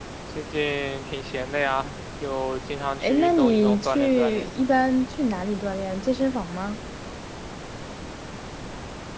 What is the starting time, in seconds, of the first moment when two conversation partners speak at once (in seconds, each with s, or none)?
3.0 s